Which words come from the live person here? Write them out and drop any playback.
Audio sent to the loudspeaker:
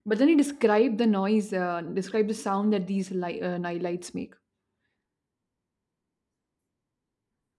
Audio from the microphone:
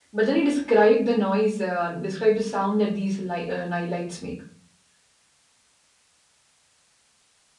none

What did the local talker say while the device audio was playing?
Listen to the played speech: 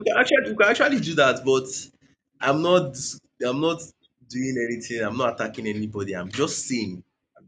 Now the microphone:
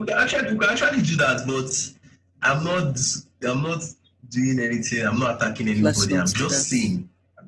Let's not do that.

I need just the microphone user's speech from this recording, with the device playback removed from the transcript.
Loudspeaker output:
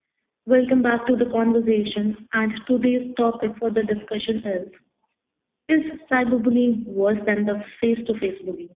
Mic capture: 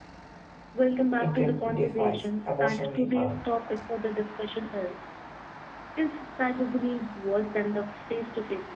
intensifies emotionally harm

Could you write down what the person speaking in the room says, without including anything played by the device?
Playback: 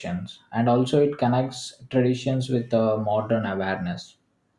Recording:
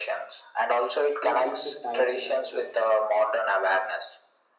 they are deeply tied to that food

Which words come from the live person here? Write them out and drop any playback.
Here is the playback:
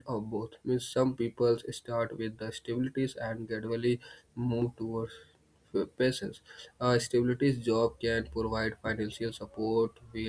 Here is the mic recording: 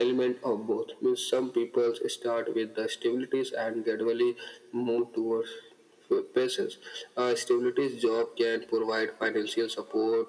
none

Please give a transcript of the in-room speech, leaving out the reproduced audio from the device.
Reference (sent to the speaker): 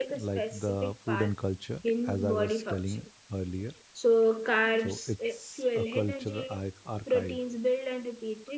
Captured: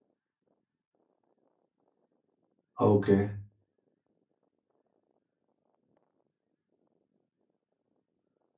okay

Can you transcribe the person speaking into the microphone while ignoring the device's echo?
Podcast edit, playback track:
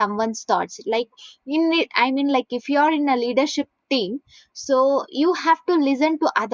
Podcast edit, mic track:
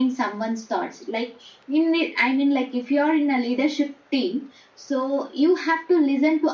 none

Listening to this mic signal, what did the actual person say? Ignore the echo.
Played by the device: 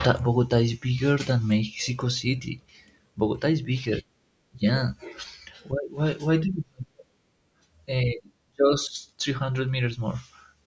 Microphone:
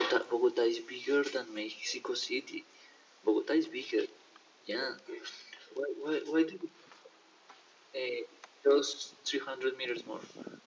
none

